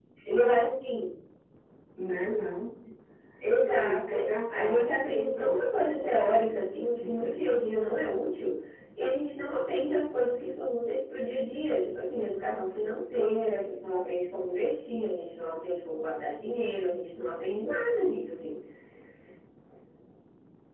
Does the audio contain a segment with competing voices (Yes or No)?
Yes